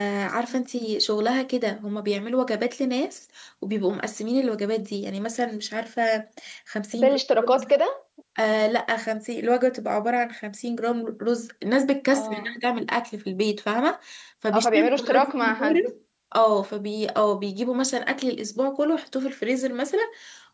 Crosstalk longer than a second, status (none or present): present